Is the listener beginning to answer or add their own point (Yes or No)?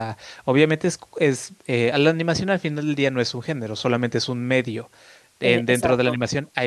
No